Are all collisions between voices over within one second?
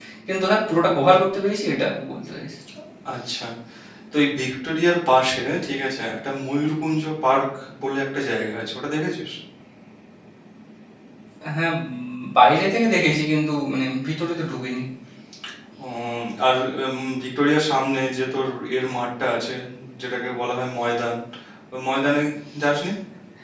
Yes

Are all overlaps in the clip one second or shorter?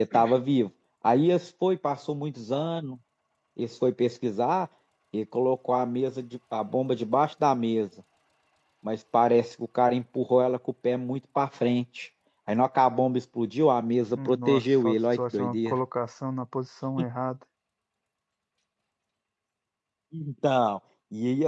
No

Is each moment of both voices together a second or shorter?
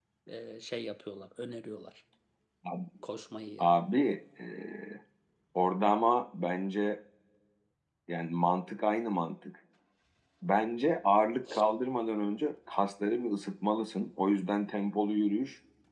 Yes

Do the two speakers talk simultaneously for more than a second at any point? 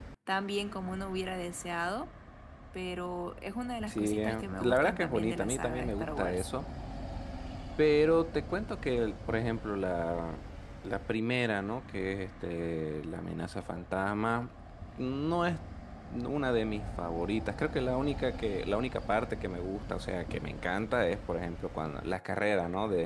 Yes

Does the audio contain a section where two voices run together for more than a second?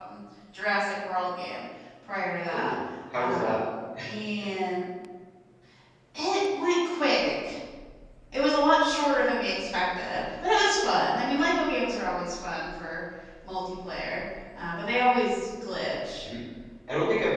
No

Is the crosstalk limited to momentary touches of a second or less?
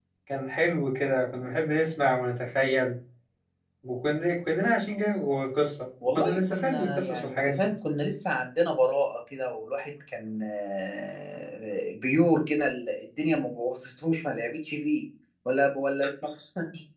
No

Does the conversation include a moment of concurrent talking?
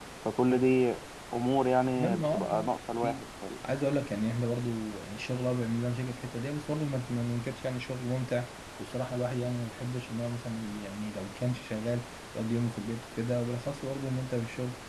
Yes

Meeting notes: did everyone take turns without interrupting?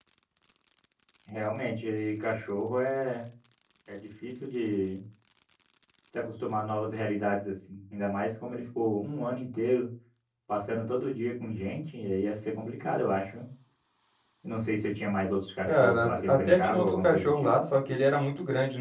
No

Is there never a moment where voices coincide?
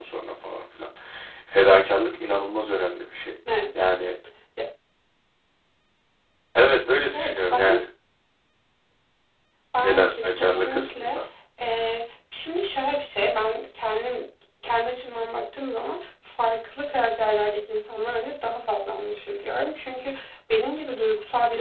No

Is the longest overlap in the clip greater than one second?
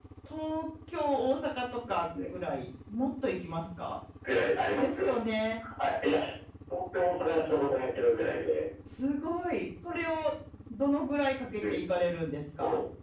No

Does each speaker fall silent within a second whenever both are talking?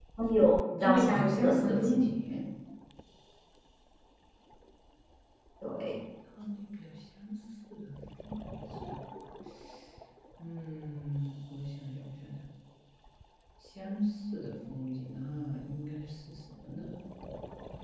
No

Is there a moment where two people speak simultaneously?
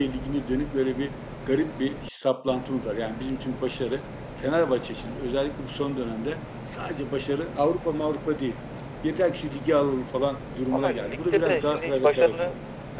Yes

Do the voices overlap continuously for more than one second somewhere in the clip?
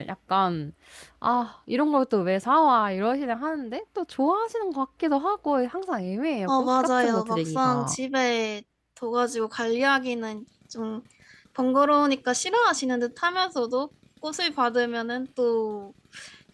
Yes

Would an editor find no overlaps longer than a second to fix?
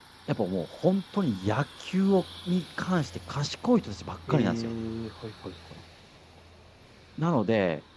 Yes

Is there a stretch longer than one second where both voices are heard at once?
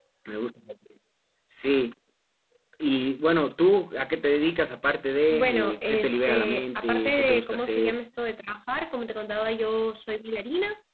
Yes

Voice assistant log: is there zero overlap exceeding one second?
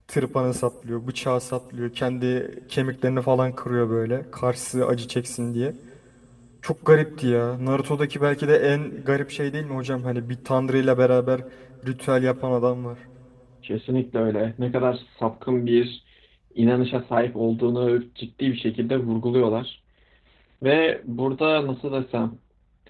Yes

